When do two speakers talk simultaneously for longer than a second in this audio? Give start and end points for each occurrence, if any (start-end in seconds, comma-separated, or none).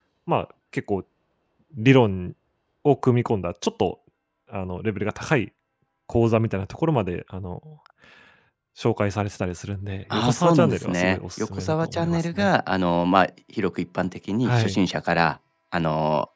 10.1-12.5